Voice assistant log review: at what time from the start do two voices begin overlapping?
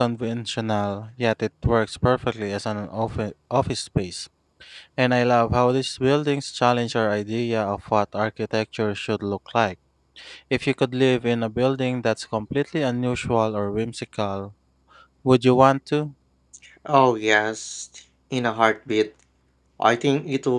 none

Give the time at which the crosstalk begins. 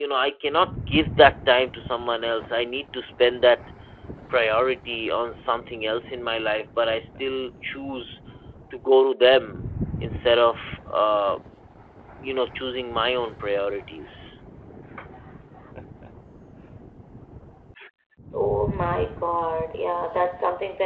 none

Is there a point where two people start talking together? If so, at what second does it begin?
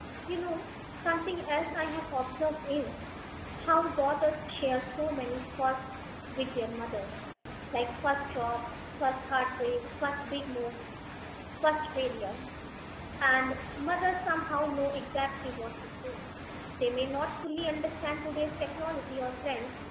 none

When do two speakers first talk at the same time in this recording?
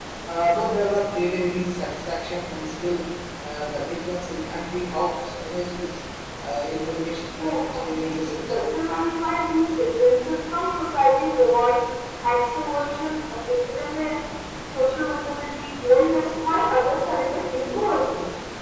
7 s

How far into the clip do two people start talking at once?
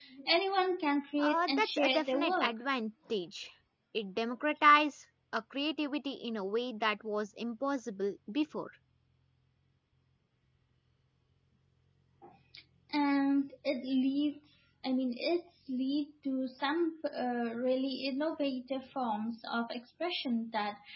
1 s

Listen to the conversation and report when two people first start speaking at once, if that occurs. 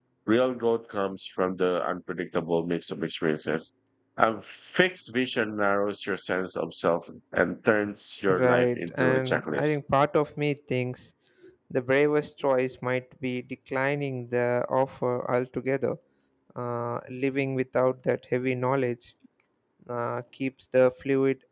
8 s

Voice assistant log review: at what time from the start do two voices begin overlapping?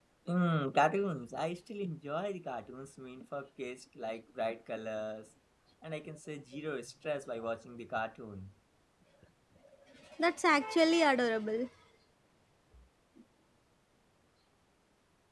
none

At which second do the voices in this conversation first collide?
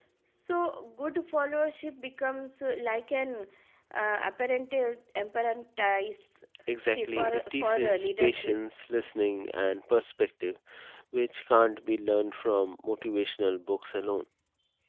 7 s

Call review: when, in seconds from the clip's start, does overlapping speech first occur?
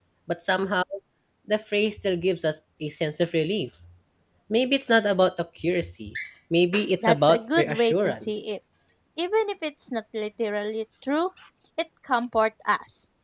7 s

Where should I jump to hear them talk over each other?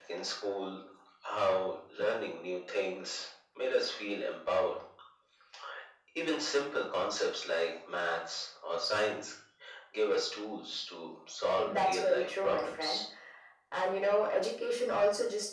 12 s

